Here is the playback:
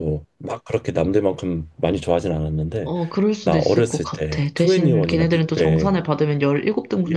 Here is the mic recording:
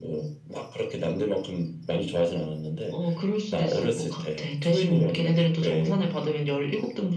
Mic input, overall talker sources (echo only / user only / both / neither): echo only